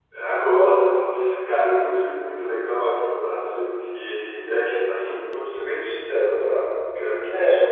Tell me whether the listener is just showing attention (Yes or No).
Yes